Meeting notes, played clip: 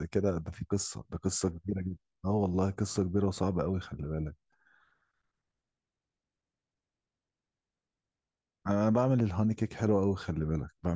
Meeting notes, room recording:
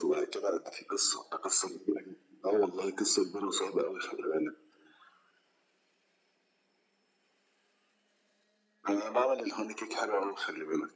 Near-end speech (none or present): none